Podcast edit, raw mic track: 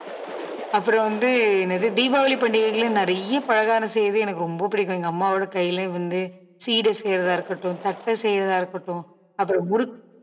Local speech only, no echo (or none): none